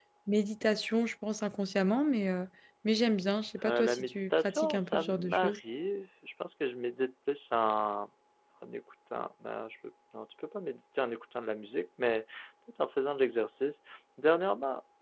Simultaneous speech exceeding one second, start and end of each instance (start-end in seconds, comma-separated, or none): 3.6-5.6